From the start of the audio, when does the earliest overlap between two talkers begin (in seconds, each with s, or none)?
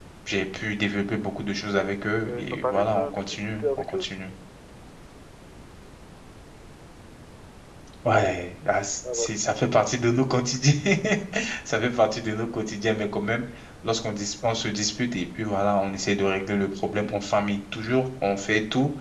2.3 s